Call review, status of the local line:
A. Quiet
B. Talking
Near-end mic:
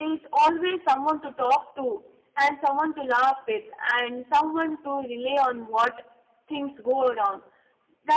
B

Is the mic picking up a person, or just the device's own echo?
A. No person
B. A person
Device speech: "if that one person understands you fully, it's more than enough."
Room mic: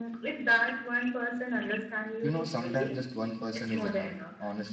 B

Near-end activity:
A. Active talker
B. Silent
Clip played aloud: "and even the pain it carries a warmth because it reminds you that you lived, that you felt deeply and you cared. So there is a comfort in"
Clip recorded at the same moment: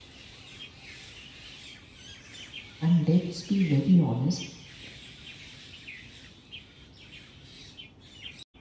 A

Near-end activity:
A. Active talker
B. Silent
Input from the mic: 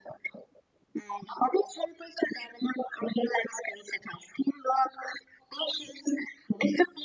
B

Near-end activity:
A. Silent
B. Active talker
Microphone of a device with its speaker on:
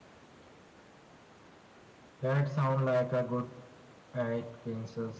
A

